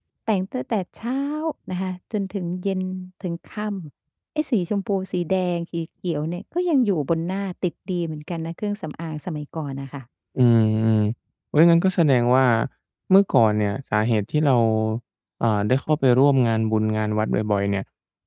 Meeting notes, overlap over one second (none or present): none